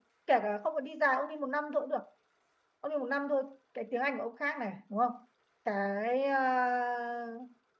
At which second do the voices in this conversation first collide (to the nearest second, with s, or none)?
none